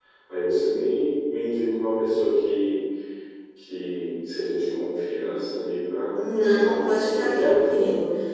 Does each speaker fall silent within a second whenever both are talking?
No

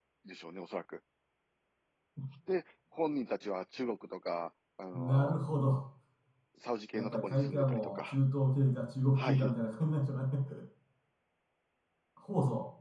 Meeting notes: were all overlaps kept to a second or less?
No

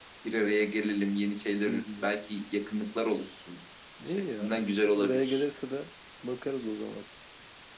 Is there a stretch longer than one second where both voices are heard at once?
Yes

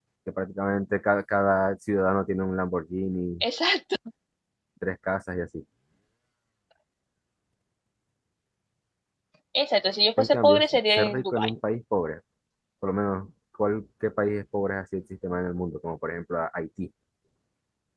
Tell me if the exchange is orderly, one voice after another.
No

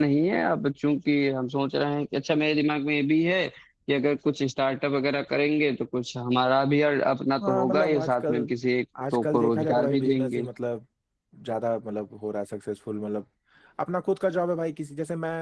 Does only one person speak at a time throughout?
No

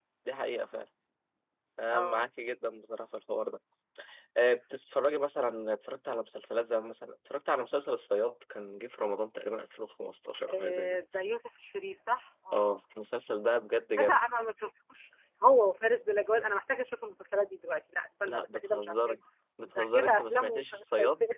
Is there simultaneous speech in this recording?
Yes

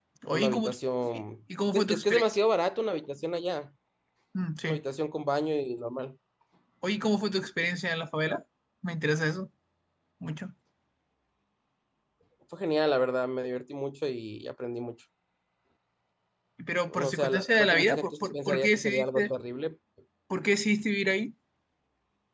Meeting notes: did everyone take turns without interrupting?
No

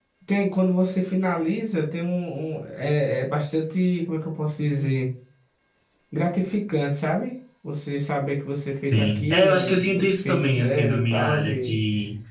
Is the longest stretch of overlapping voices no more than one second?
No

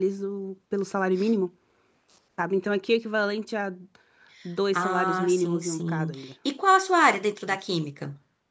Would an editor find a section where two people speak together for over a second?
Yes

